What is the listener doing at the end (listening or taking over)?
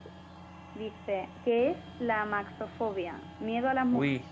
listening